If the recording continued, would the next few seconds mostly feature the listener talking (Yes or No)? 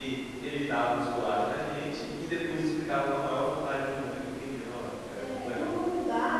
Yes